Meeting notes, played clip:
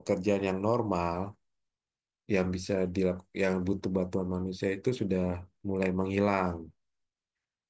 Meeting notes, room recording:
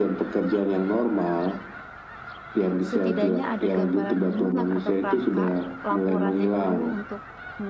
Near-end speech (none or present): present